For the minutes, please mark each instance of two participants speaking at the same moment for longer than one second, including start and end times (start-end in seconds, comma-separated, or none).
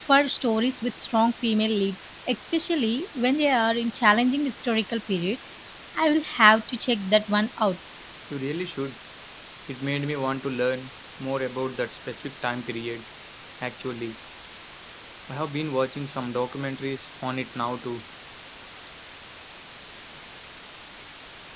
none